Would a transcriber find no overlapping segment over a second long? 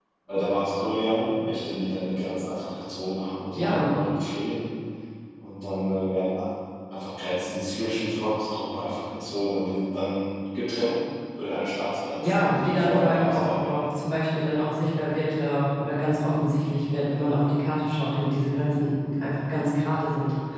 No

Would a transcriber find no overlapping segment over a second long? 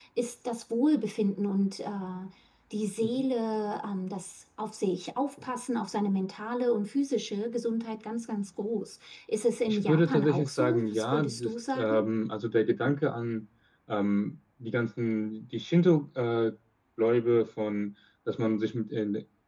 No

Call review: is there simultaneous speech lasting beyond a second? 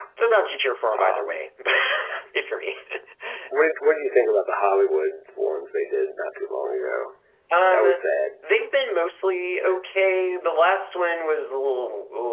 No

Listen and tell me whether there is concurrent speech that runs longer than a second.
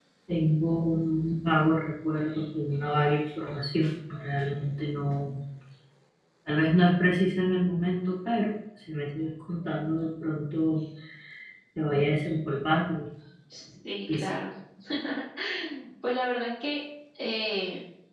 No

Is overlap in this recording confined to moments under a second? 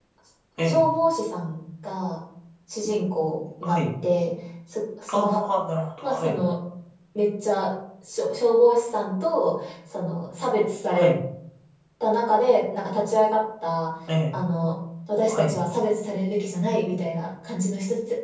Yes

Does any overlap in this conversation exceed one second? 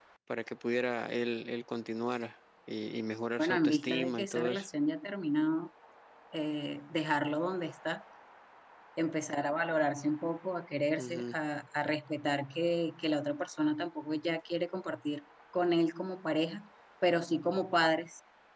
Yes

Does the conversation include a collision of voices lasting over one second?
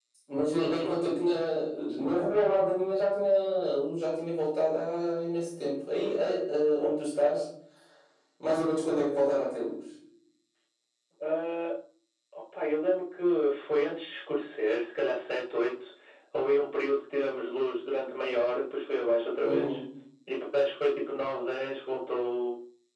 No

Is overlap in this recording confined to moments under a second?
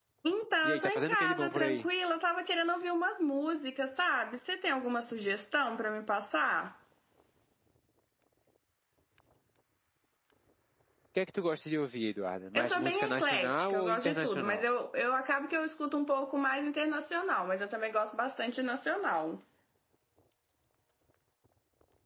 No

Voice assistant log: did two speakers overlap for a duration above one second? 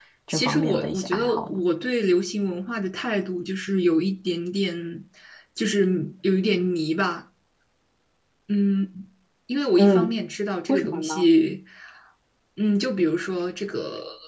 Yes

